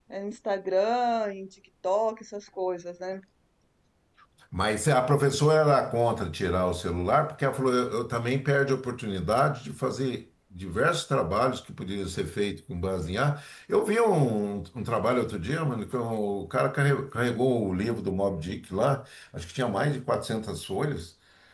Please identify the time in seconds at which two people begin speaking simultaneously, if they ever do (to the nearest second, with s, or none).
none